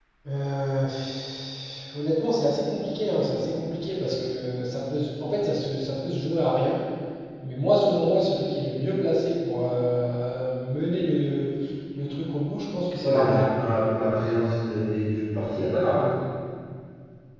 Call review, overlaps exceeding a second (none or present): none